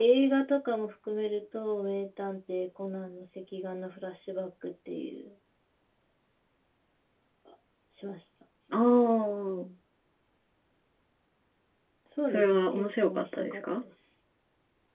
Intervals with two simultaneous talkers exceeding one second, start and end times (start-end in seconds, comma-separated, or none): 12.3-13.8